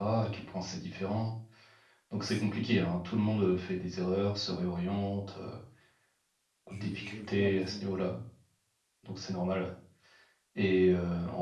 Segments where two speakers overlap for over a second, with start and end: 6.7-8.1

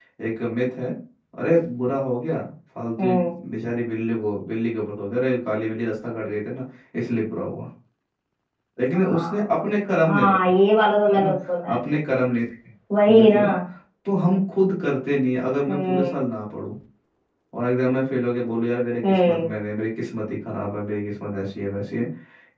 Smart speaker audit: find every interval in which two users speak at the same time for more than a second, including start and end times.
8.9-10.4

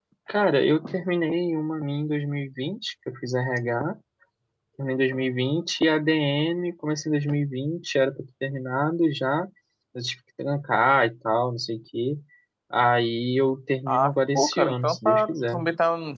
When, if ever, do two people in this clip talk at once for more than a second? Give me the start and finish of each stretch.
13.9-15.6

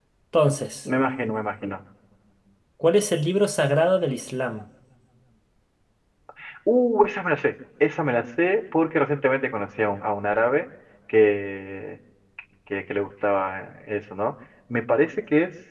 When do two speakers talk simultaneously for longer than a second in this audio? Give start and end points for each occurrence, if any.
none

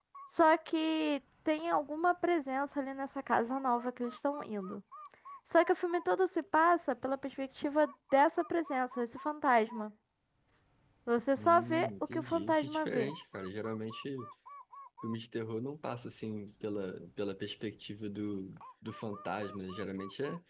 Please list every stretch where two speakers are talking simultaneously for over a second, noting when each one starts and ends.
11.4-13.1

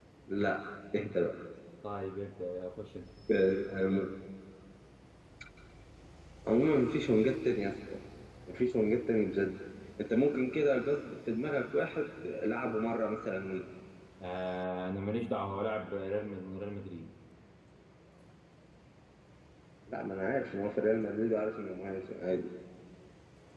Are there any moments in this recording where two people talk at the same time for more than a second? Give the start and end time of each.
none

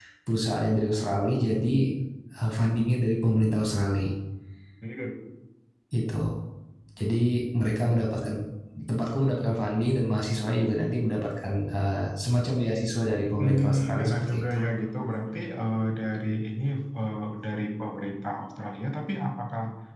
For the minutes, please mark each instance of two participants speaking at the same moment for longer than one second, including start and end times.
13.4-14.6

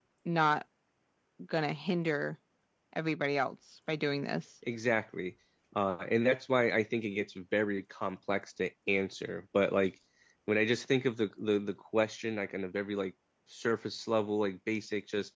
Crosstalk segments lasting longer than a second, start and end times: none

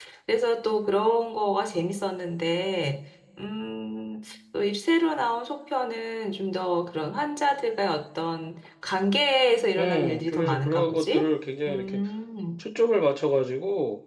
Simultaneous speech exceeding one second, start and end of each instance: 9.8-11.3

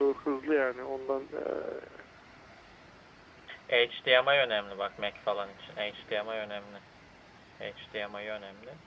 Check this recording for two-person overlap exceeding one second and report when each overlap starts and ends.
none

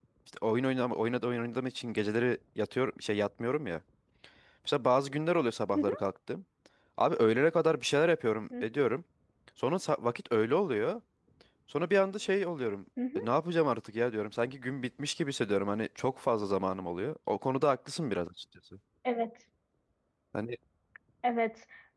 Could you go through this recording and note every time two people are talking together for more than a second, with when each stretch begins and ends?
none

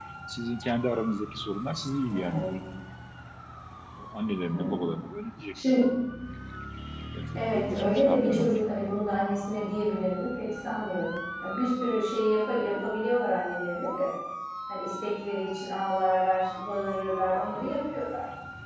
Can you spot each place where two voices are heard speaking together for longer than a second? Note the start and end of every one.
7.3-8.6

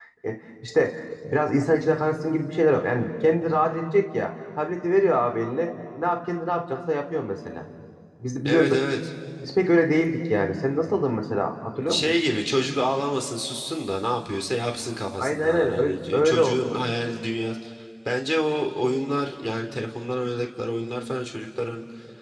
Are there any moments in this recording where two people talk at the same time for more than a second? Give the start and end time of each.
15.2-16.8

